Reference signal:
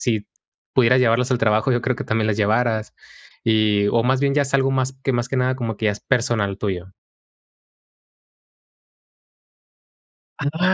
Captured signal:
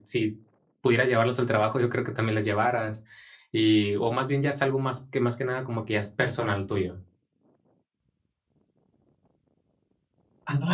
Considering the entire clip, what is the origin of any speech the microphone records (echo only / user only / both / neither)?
echo only